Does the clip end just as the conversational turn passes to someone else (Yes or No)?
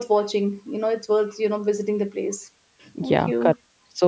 Yes